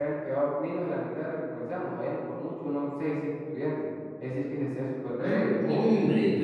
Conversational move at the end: taking over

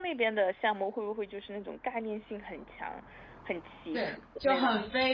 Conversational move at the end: taking over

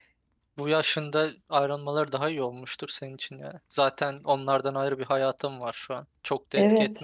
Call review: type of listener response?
taking over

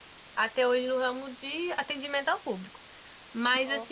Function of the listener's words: listening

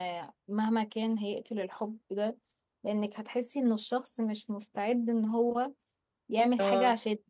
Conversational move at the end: listening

